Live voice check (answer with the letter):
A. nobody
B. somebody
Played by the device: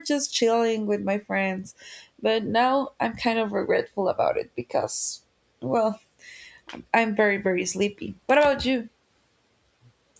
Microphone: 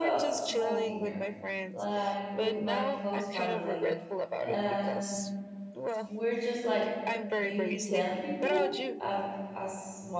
B